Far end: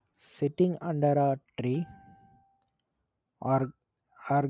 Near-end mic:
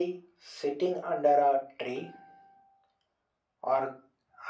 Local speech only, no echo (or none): none